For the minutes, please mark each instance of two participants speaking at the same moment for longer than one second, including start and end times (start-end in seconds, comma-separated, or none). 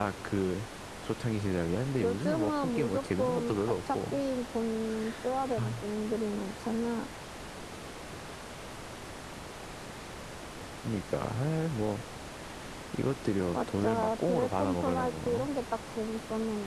2.0-4.2, 13.5-15.5